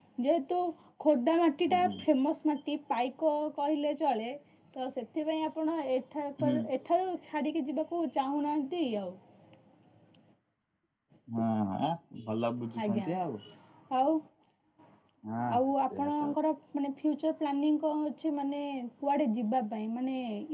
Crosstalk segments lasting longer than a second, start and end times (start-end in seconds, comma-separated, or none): none